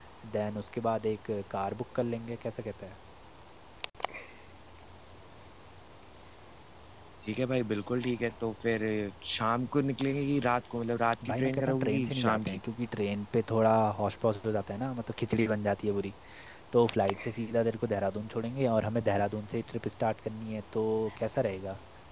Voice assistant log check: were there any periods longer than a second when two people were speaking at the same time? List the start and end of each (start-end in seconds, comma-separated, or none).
11.3-12.6